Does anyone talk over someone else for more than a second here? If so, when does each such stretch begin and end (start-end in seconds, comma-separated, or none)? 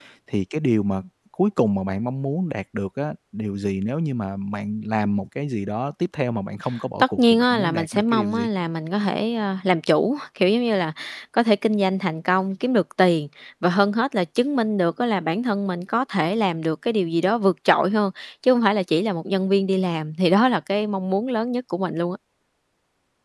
7.0-8.5